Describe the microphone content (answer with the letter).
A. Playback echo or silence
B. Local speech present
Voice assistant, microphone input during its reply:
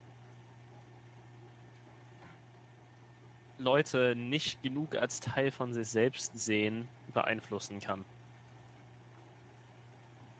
B